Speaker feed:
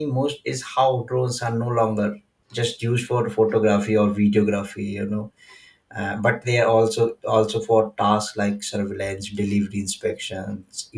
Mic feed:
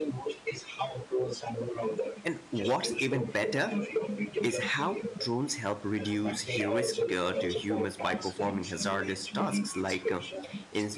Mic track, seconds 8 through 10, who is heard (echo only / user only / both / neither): both